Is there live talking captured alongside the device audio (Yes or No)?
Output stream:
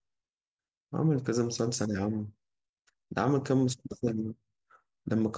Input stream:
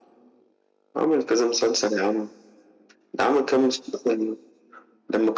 No